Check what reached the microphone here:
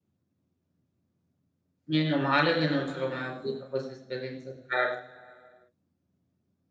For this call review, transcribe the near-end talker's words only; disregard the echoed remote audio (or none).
Meno male che non ce l'ho mai avuta questa esperienza tragica.